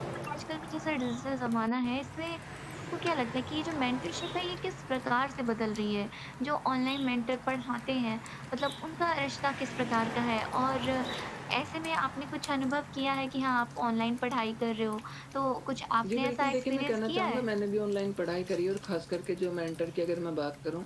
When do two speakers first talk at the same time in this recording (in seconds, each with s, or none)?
16.0 s